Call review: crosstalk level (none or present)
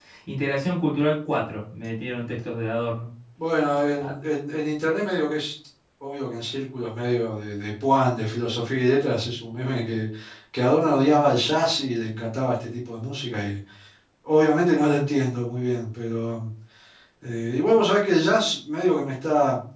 none